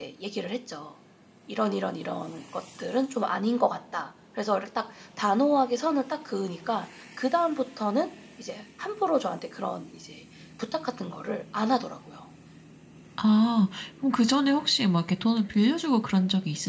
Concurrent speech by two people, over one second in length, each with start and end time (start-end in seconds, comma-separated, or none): none